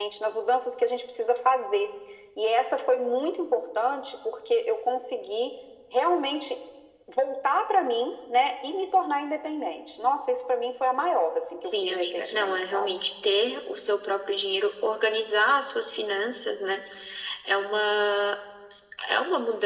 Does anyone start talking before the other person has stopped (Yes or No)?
Yes